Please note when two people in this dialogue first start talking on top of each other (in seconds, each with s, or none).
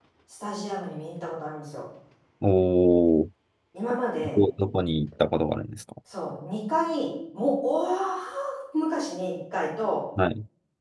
none